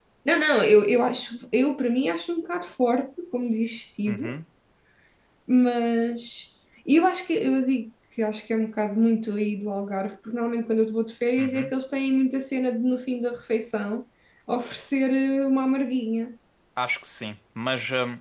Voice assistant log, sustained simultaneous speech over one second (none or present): none